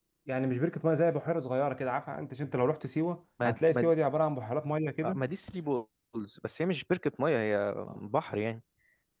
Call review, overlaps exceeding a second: none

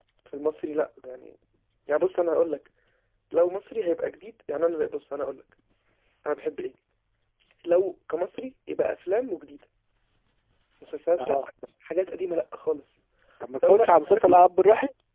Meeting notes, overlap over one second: none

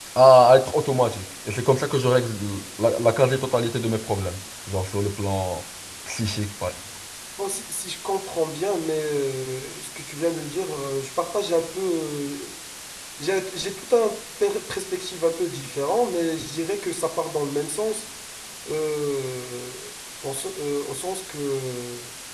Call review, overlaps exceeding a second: none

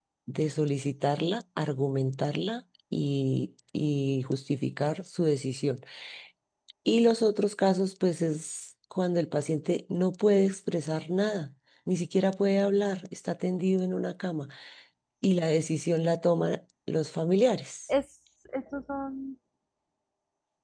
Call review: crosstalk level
none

